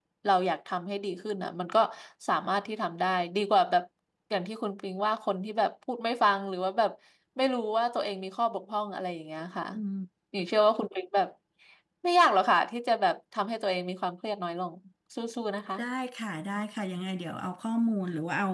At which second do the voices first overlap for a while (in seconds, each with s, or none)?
none